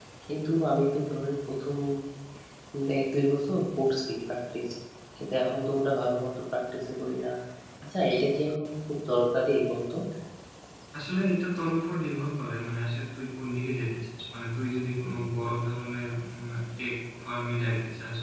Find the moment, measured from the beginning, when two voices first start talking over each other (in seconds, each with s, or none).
none